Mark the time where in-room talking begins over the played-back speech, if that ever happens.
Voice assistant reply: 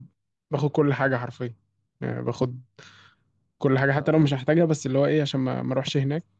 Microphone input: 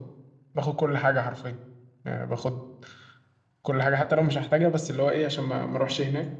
none

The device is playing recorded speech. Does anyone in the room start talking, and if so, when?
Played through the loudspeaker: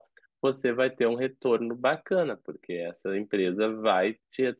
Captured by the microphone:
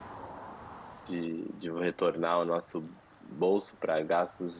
1 s

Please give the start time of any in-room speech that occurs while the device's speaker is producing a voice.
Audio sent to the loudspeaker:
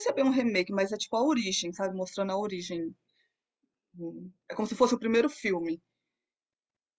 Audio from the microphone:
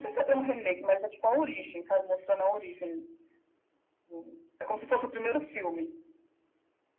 none

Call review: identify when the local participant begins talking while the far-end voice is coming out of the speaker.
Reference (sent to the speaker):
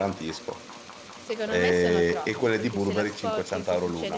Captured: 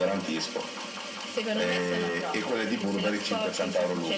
none

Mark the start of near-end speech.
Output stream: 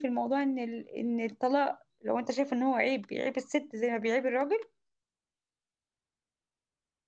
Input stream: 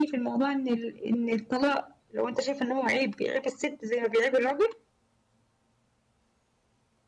none

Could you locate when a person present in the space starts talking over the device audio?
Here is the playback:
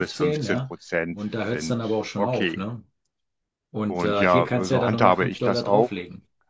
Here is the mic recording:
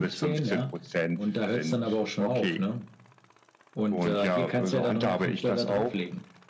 none

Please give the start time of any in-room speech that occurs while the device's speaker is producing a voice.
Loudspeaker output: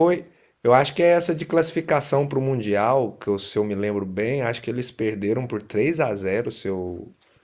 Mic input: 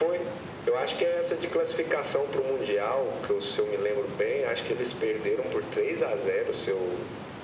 none

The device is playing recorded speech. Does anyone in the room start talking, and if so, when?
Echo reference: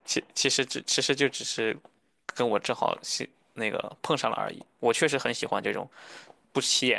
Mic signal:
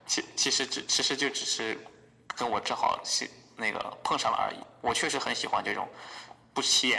none

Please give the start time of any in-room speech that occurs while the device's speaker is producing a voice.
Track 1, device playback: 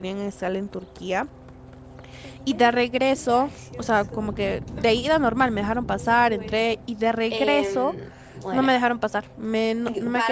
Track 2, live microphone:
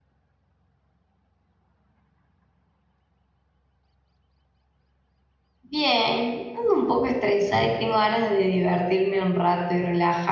6 s

